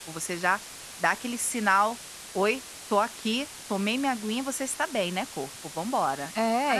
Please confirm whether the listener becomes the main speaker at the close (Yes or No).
Yes